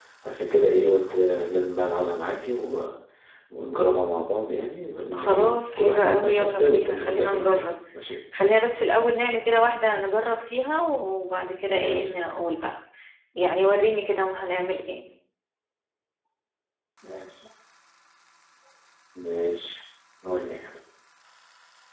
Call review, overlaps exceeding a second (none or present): present